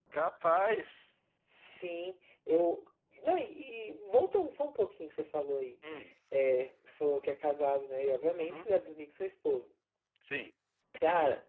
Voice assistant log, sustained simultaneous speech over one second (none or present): none